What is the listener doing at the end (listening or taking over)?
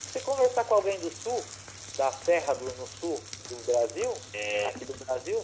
listening